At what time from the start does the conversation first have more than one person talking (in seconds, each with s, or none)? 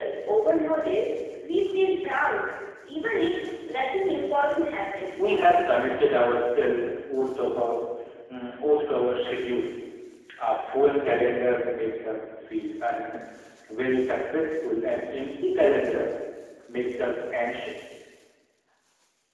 none